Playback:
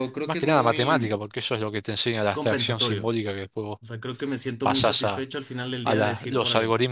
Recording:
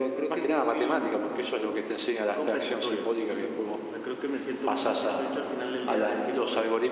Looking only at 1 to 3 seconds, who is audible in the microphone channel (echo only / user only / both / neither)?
echo only